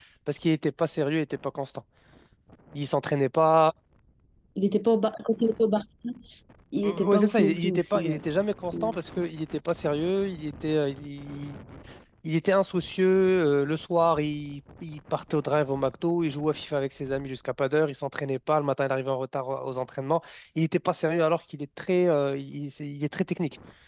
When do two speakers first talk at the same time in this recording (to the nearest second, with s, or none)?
7 s